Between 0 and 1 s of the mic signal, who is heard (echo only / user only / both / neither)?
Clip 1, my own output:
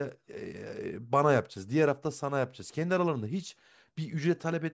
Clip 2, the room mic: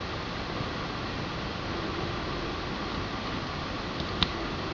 neither